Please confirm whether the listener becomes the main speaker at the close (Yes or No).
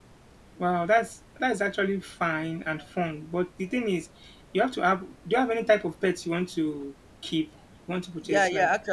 Yes